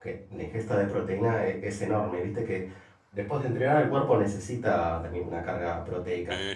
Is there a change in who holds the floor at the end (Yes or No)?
Yes